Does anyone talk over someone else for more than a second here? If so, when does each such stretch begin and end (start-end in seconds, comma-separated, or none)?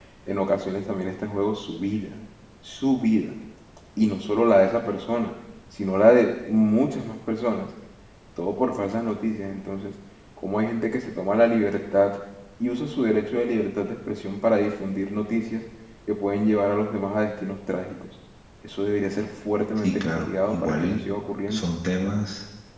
19.8-21.0